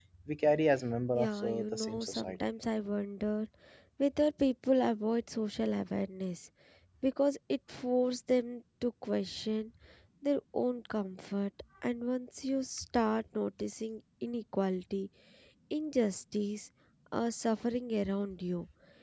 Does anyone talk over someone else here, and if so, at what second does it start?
1.2 s

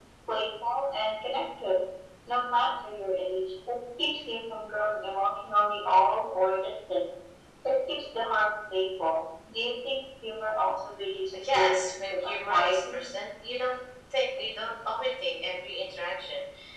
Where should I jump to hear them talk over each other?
11.3 s

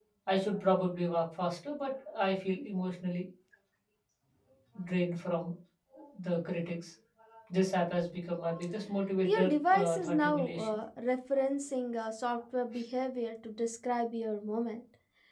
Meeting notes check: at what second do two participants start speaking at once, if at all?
9.2 s

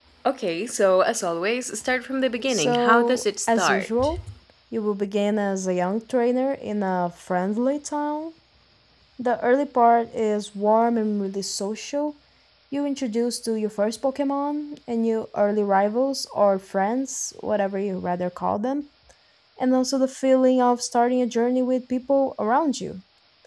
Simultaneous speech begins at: 2.4 s

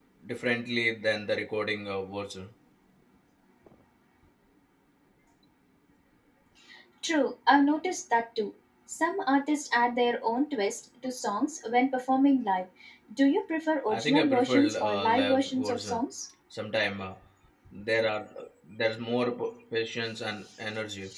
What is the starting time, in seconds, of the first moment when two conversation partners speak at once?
13.9 s

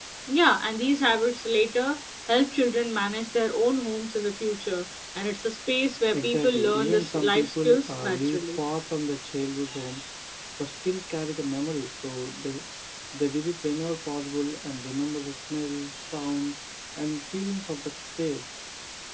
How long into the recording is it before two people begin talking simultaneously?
6.1 s

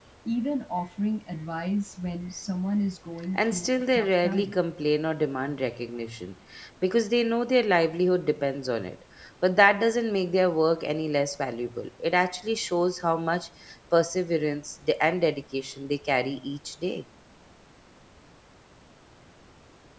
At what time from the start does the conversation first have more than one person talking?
3.3 s

